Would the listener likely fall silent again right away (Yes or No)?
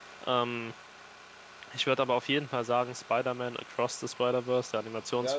No